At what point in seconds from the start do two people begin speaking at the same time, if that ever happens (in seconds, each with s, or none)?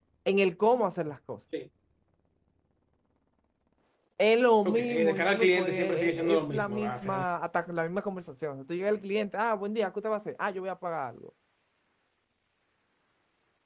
4.6 s